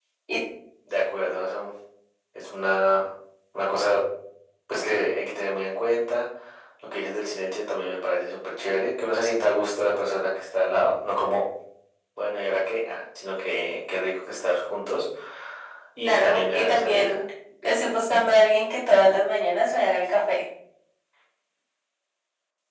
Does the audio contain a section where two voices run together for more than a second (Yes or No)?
Yes